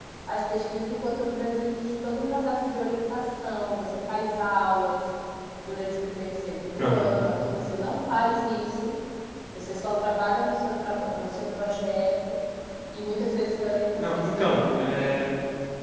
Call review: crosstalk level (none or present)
present